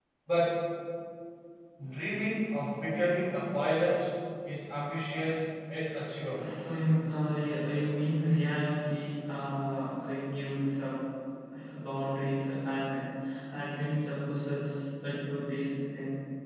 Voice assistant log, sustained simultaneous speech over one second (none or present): none